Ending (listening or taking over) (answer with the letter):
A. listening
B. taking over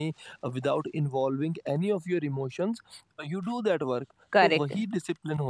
A